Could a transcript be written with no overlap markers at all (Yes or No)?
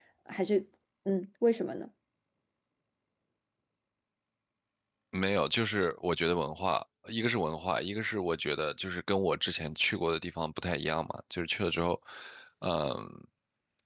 Yes